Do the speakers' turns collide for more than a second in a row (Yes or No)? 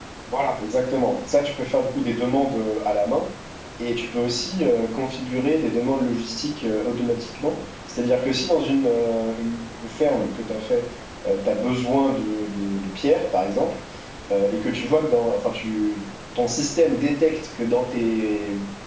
No